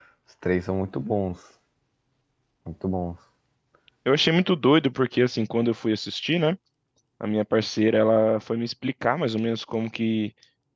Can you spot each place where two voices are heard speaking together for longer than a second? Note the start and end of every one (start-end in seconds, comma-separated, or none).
none